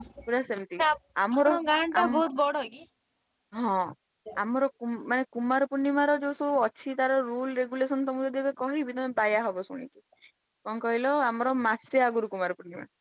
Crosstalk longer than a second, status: none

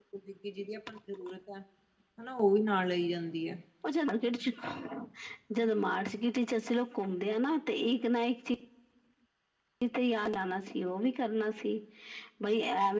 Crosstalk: none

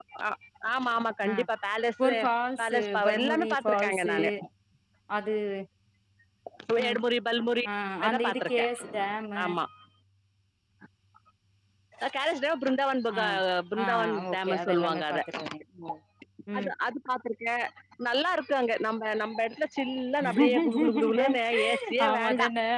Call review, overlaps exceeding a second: present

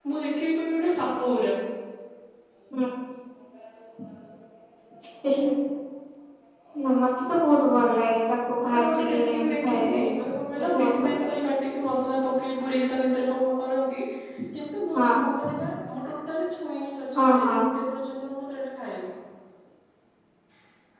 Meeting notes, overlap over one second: present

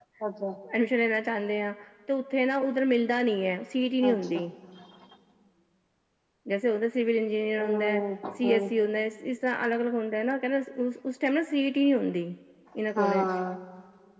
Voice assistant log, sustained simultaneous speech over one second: none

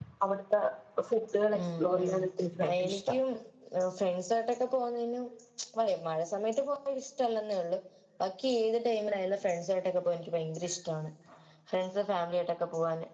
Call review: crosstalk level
present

